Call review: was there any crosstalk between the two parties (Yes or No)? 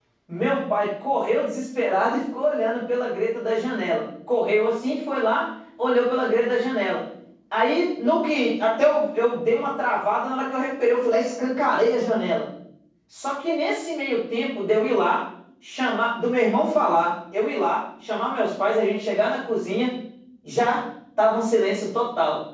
No